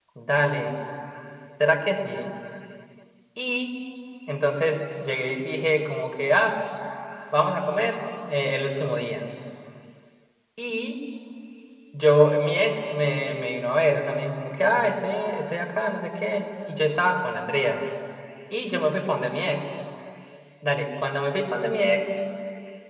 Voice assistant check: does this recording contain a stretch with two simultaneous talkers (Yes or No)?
No